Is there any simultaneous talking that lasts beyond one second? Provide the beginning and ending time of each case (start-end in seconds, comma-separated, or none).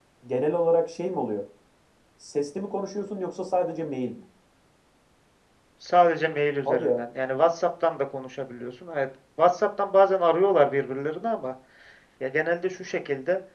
none